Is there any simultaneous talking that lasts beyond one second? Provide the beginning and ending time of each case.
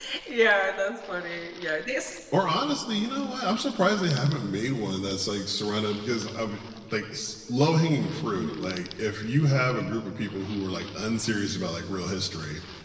none

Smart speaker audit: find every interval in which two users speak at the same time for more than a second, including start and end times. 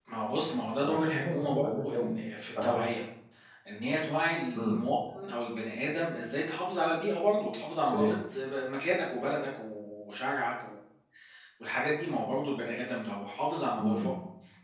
0.8-2.1

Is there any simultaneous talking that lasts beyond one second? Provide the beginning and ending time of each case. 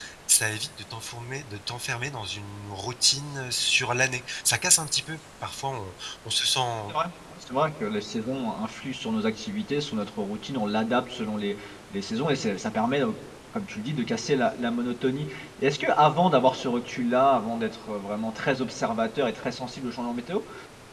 none

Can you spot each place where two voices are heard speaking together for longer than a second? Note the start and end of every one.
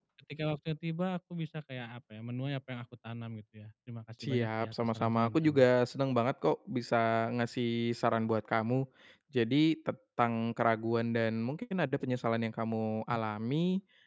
4.2-5.6

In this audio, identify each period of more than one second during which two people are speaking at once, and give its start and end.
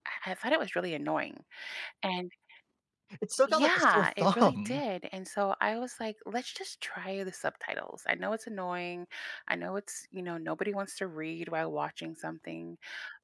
3.5-4.8

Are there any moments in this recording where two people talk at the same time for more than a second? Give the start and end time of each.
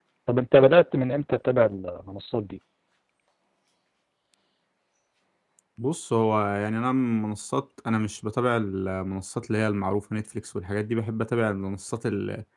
none

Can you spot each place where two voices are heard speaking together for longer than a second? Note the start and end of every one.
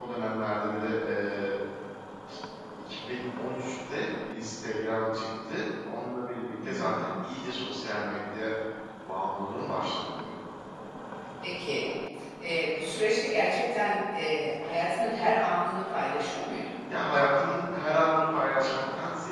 none

